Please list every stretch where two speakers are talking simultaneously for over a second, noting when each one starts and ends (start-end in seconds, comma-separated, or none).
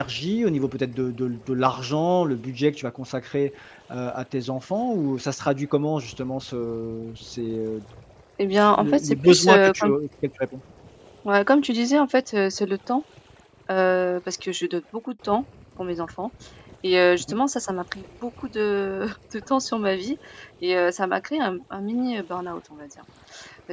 8.5-9.9